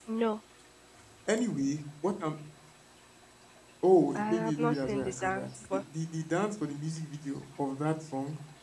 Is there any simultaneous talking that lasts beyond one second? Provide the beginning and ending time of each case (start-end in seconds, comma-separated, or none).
4.2-5.8